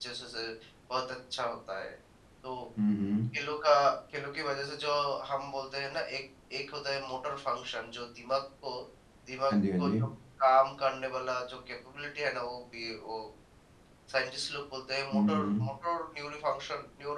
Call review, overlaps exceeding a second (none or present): none